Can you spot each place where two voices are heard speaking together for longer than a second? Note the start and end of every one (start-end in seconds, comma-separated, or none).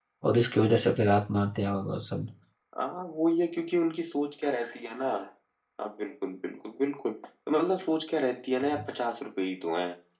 none